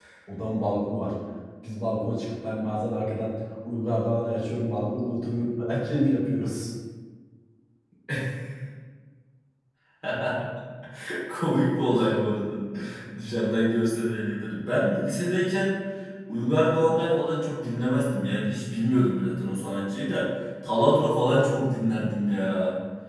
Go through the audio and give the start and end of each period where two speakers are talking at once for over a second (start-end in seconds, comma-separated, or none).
none